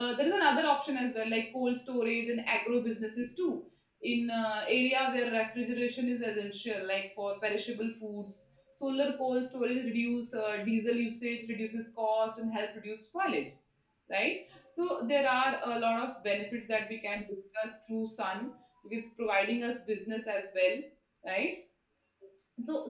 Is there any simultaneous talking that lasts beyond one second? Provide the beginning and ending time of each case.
none

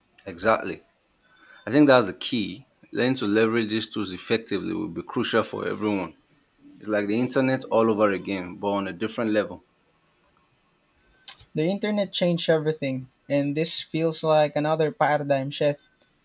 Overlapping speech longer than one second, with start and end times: none

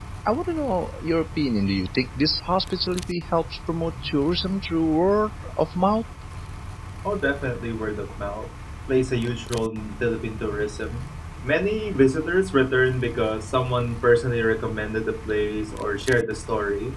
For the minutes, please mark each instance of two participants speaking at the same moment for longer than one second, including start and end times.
none

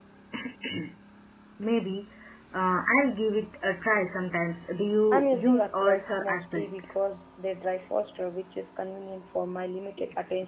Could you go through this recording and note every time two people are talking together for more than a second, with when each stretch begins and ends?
5.1-7.0

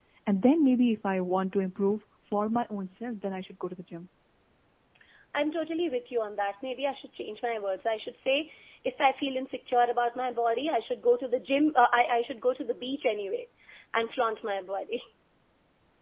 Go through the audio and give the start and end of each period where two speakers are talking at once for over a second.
none

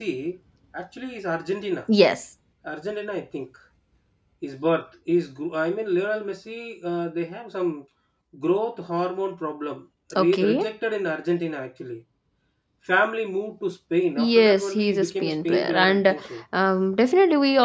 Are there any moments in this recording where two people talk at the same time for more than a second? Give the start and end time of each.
14.2-16.2

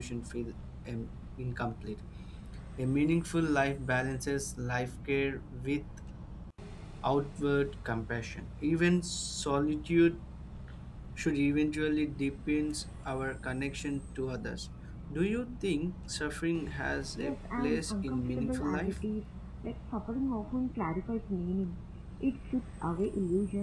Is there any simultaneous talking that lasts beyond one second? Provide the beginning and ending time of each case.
17.2-19.0

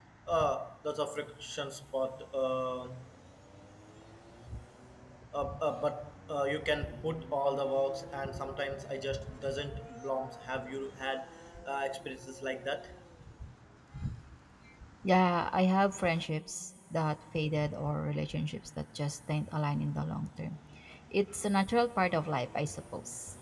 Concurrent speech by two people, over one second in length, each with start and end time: none

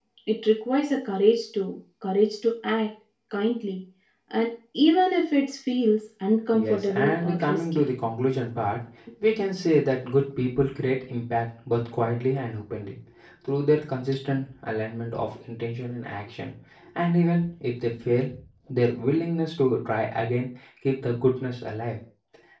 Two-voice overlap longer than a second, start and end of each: 6.5-7.8

